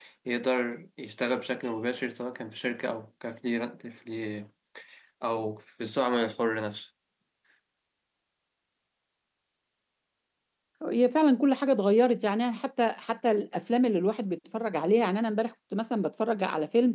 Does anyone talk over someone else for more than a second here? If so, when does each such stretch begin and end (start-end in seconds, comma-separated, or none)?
none